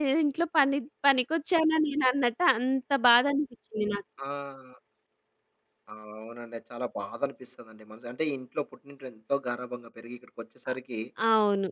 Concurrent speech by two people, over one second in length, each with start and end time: none

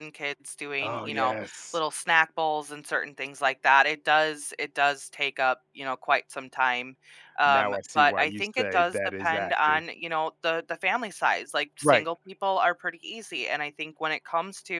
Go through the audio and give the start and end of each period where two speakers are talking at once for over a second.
7.4-9.8

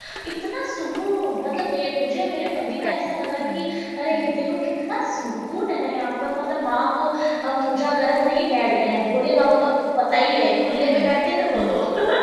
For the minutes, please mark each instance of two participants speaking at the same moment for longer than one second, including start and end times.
2.7-4.4

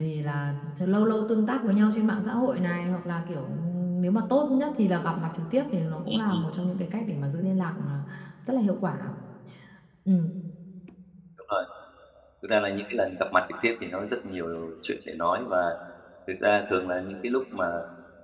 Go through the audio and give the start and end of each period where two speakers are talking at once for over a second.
none

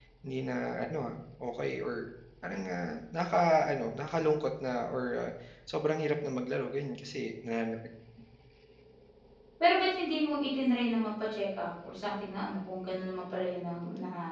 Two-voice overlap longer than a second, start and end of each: none

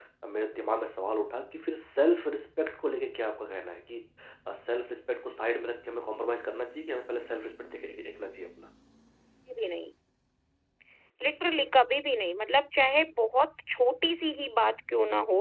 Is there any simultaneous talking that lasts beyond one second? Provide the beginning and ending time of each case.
none

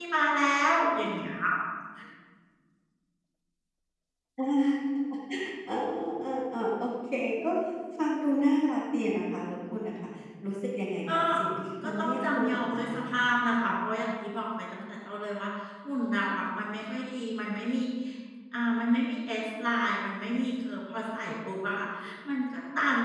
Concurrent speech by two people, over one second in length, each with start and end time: 11.8-13.2

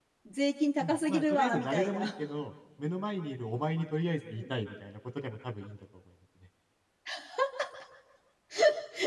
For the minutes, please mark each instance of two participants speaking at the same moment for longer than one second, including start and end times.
0.8-2.1

